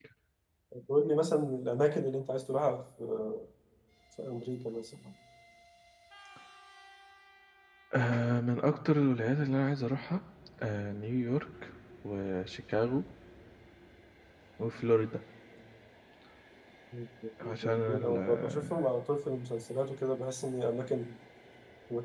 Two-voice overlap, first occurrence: 17.5 s

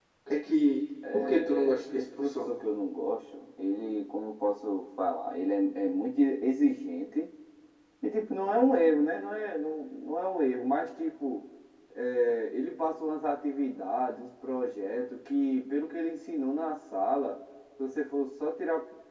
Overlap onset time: 1.1 s

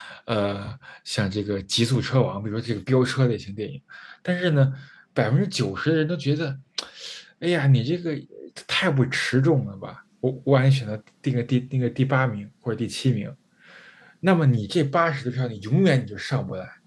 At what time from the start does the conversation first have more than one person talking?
none

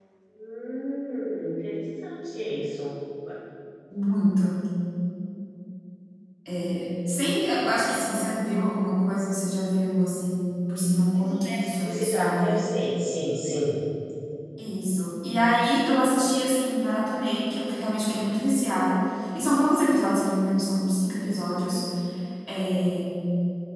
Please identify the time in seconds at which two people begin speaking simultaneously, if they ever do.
11.2 s

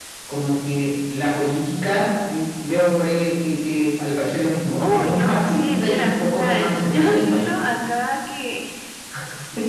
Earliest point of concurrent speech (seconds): 4.8 s

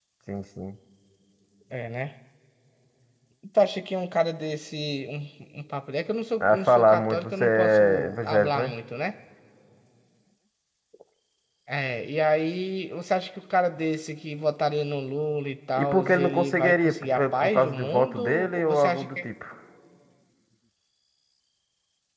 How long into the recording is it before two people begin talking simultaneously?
6.4 s

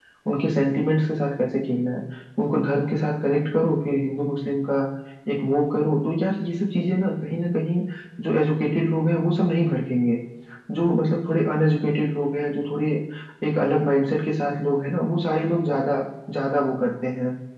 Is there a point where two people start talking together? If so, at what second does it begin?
none

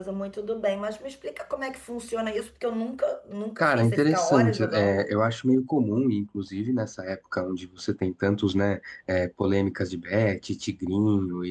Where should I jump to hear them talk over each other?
3.6 s

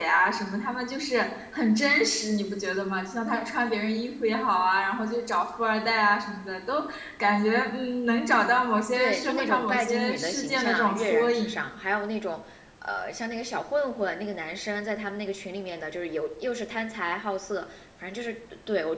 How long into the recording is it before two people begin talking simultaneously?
8.9 s

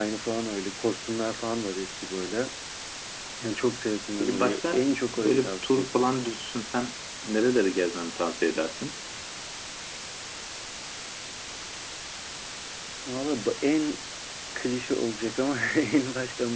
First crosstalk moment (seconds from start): 4.2 s

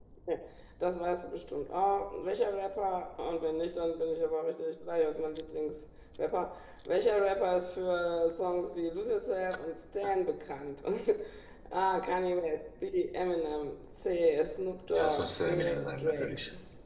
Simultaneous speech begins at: 14.9 s

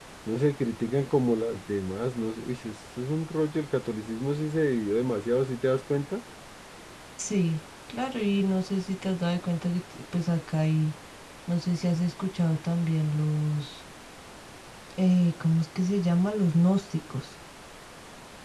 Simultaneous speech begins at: none

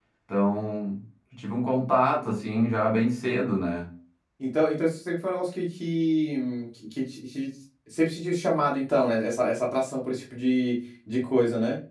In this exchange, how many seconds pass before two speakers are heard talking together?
none

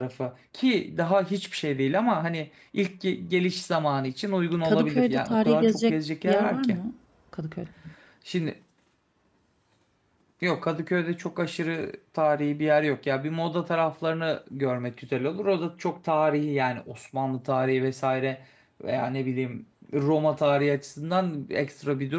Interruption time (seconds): 4.6 s

